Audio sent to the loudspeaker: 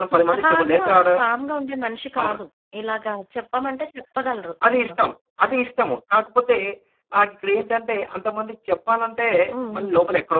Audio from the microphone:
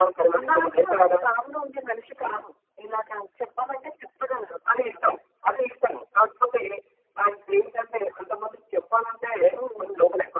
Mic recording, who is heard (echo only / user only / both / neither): both